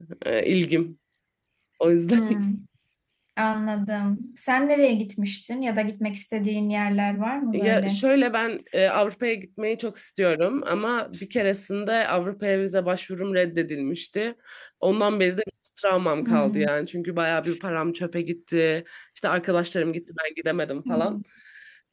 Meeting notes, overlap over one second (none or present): none